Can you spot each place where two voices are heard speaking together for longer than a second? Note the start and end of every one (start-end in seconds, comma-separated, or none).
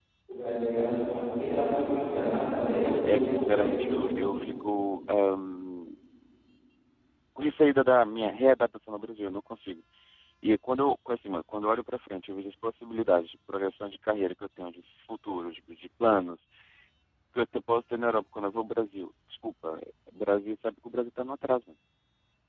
3.0-4.3